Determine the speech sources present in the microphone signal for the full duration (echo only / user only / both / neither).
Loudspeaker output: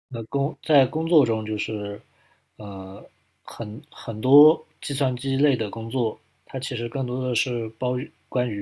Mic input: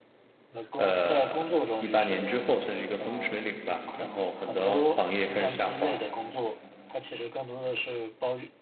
both